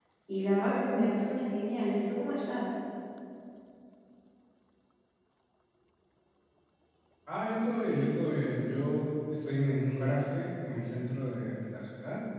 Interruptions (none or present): none